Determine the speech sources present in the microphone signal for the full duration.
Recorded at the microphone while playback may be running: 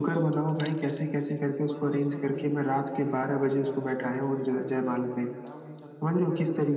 both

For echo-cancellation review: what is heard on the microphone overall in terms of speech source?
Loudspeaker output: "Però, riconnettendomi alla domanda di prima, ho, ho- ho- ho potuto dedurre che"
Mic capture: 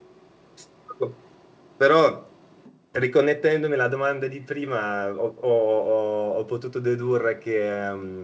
echo only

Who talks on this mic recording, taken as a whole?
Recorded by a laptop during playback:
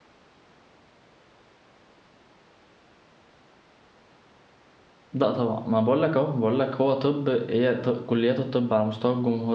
user only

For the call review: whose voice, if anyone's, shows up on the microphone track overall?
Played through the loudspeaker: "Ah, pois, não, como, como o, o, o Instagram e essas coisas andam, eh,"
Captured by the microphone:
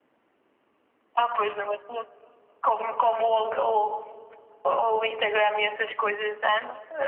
echo only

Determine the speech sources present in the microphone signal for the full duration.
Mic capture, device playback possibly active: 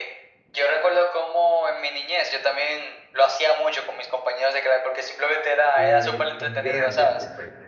both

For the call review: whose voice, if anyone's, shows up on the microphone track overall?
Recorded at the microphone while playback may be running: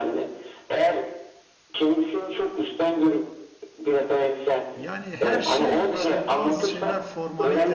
both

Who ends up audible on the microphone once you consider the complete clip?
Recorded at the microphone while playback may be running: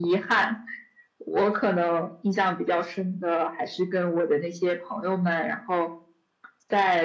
echo only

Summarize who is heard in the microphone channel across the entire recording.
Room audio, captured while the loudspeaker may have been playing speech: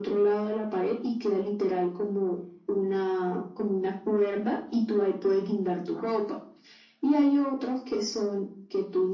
echo only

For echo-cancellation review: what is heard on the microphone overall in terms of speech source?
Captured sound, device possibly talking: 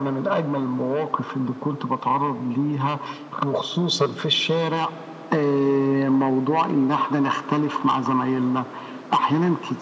echo only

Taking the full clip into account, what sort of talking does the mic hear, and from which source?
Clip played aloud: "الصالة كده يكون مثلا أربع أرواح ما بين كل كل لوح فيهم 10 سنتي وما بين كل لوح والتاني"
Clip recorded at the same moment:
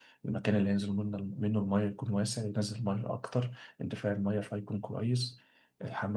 user only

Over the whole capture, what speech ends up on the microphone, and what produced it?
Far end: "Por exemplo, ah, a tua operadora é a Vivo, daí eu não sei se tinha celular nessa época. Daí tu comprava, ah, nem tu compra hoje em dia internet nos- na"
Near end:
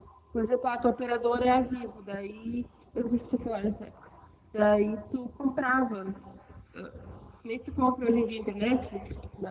echo only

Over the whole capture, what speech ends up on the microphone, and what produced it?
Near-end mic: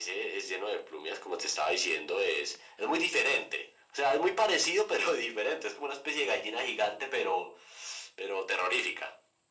echo only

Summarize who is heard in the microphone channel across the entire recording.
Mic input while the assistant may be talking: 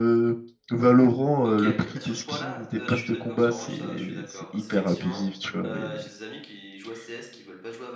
both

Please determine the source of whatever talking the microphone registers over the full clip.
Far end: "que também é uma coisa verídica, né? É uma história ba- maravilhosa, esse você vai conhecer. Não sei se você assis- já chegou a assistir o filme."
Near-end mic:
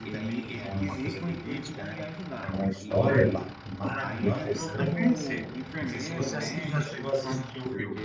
both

